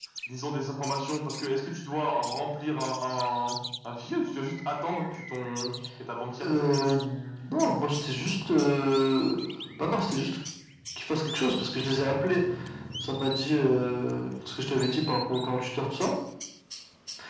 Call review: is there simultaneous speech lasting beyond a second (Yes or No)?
No